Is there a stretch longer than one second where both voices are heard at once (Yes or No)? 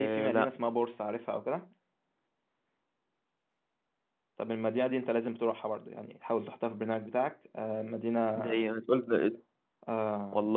No